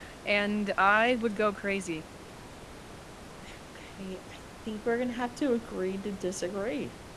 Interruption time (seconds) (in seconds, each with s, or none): none